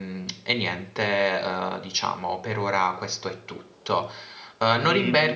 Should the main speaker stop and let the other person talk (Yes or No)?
No